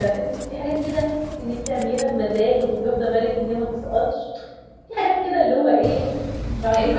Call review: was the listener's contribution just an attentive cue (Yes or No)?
No